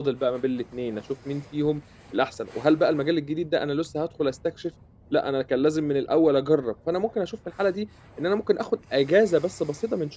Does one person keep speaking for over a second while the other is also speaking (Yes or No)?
No